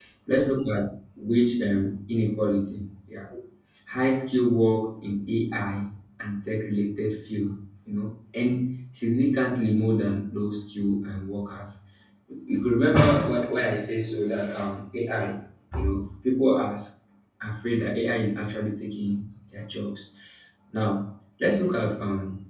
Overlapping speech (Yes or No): No